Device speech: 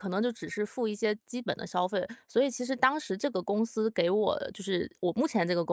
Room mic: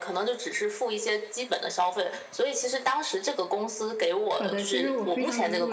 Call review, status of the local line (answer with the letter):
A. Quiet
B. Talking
B